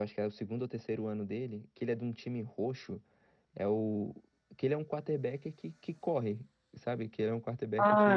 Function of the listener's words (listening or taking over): taking over